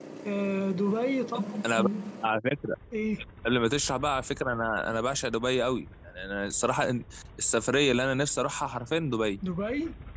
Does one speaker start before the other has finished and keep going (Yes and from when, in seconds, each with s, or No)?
No